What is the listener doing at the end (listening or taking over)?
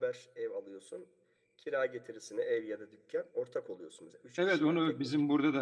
taking over